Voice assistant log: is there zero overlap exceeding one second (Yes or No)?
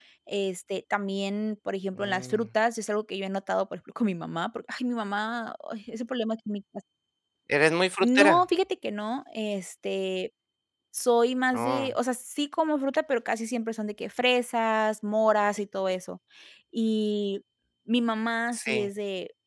Yes